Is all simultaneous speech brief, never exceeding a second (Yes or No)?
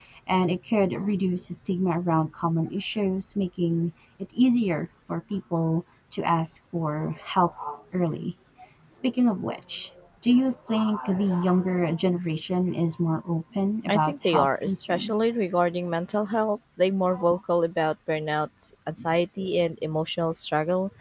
No